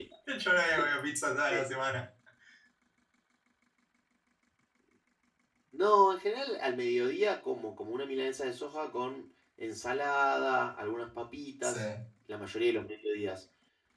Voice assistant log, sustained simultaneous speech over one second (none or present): none